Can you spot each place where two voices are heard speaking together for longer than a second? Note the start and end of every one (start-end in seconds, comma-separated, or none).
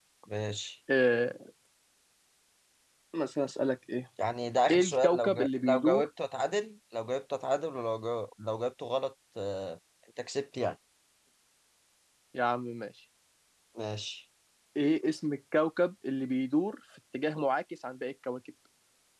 4.7-6.1